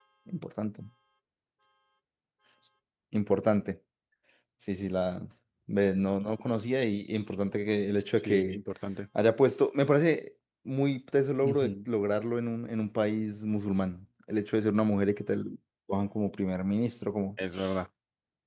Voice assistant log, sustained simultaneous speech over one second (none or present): none